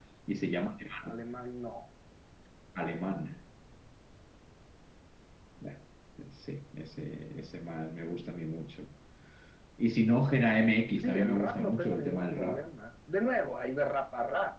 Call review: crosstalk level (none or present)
present